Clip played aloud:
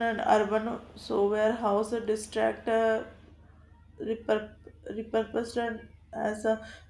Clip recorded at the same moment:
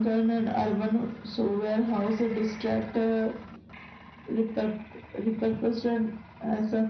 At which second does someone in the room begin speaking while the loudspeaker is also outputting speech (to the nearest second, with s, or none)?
none